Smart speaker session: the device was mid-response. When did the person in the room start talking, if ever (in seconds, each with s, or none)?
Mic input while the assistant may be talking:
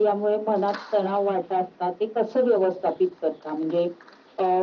none